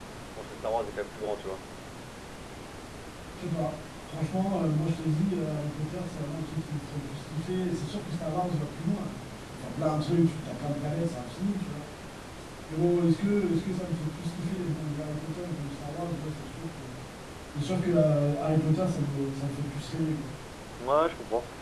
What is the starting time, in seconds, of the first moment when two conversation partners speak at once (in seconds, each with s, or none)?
none